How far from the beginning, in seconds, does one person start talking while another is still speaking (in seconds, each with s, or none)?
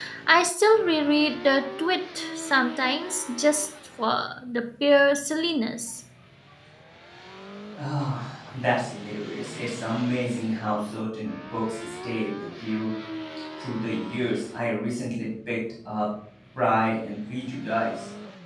none